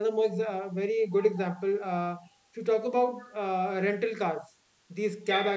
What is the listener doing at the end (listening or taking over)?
listening